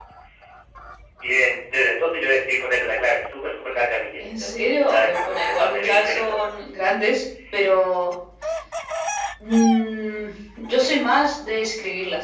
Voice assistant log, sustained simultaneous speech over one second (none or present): present